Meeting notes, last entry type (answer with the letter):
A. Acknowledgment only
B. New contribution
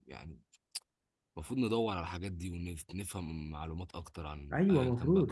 B